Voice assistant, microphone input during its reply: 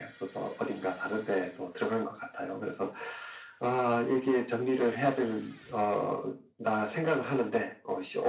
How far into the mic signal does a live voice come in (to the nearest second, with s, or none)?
none